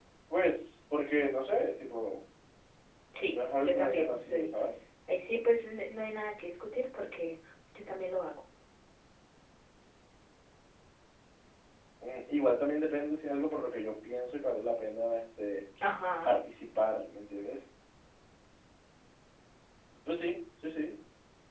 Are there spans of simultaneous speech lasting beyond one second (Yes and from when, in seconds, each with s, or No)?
Yes, from 3.3 s